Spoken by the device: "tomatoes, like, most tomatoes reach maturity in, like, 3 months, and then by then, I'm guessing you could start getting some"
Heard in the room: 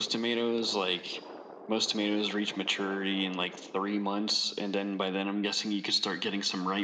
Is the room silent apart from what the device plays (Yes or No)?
Yes